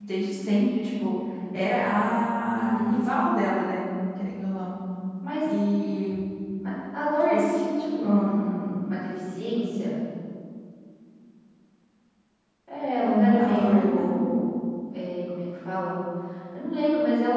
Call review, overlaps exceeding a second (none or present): present